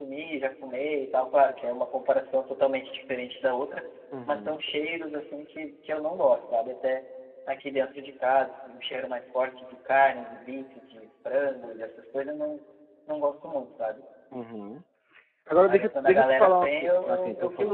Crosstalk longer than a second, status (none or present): present